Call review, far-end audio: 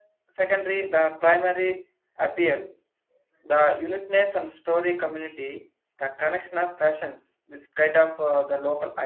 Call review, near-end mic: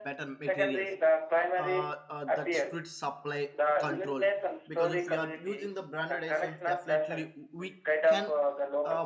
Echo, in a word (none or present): present